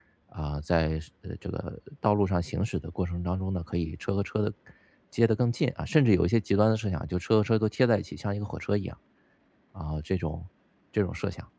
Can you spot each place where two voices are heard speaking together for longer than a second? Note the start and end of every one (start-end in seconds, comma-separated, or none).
none